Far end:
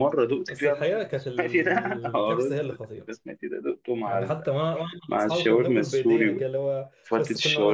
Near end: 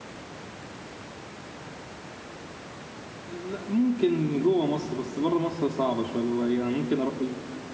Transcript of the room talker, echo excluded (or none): لا ممكن جوه مصر بس بره مصر صعبة شوية اللي هو يعني ممكن أروح